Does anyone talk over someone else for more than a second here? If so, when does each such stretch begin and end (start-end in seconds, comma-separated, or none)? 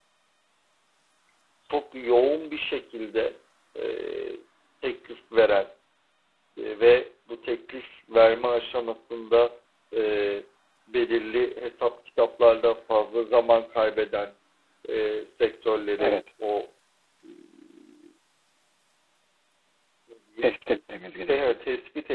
none